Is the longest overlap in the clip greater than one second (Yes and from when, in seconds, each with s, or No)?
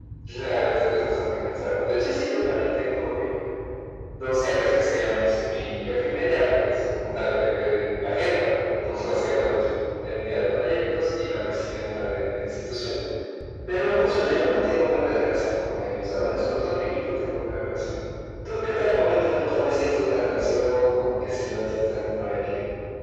No